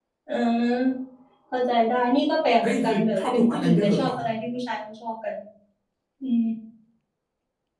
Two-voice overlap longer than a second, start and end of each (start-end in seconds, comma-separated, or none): 2.6-4.1